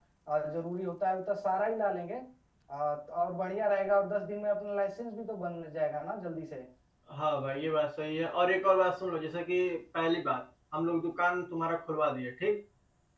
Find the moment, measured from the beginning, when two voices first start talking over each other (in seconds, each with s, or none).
none